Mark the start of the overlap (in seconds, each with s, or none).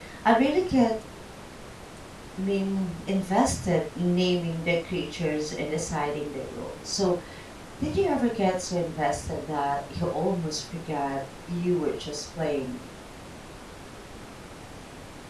none